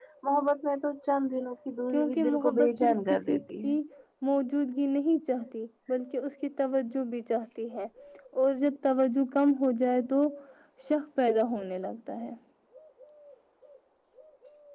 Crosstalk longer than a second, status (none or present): present